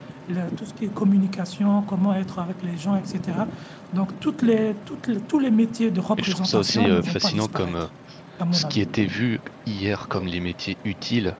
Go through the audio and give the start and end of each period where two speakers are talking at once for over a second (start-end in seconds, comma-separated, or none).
6.2-7.8